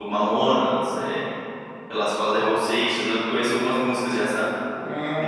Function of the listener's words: taking over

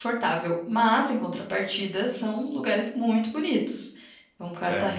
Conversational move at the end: listening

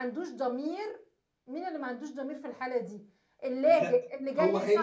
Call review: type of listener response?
taking over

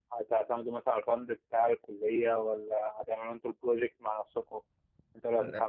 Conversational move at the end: listening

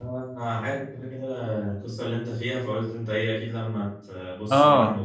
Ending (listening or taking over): taking over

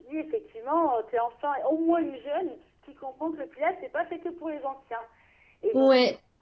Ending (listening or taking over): listening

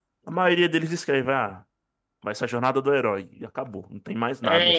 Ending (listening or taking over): taking over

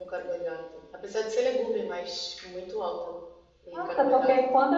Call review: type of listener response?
taking over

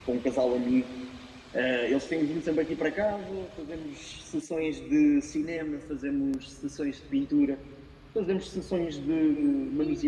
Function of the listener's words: listening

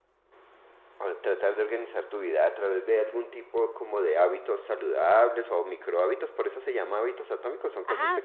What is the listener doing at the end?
taking over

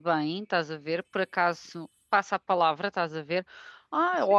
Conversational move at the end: listening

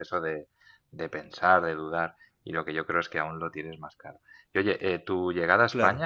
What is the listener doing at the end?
listening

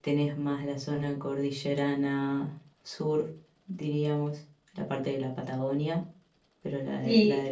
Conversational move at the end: taking over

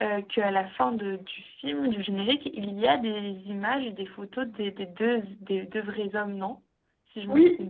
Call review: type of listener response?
taking over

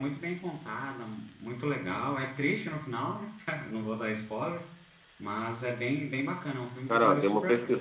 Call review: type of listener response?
taking over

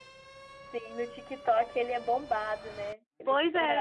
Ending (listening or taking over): taking over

